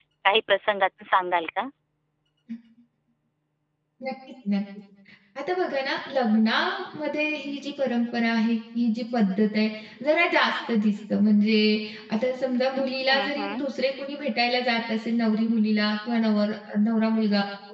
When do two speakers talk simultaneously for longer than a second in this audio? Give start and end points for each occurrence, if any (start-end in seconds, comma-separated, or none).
none